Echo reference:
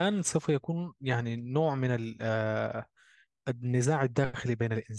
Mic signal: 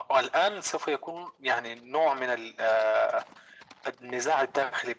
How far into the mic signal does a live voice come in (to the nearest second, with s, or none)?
none